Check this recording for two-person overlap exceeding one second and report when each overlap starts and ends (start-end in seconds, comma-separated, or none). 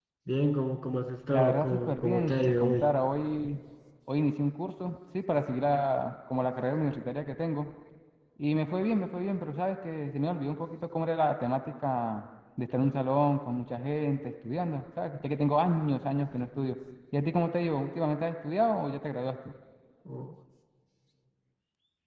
1.3-2.9